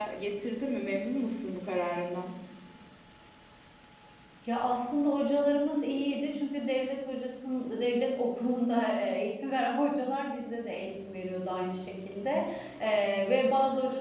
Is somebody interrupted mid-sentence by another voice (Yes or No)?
No